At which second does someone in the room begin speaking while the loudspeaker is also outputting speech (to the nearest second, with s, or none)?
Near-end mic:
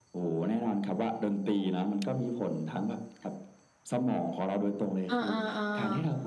5 s